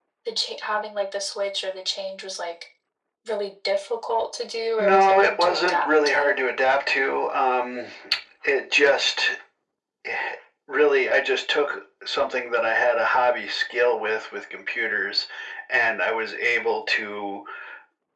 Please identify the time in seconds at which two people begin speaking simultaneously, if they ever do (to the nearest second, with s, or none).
5 s